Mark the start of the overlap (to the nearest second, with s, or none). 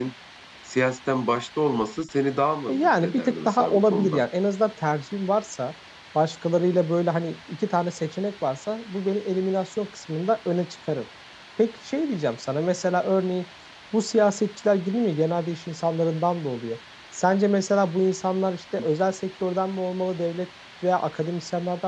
3 s